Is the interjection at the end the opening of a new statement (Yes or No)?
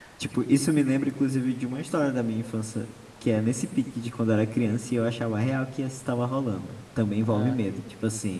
No